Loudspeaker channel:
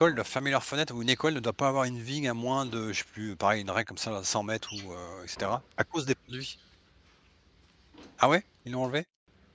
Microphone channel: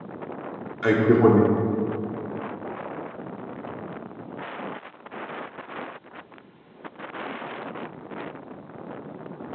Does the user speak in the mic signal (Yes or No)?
Yes